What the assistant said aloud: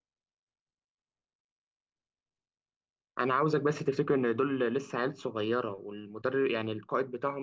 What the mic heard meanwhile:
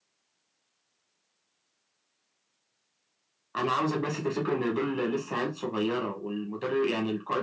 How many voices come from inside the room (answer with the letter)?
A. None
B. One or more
A